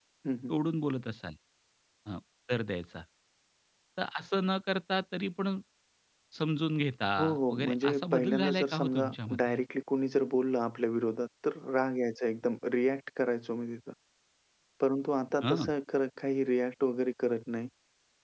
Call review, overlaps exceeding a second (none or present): present